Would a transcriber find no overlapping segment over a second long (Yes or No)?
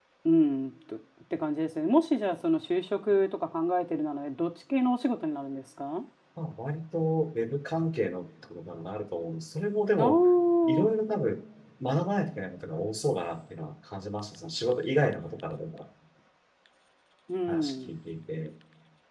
Yes